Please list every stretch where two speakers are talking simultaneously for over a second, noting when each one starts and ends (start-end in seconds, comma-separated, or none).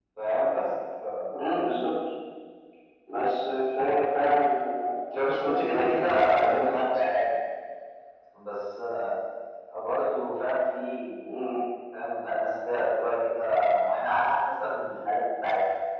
5.1-6.8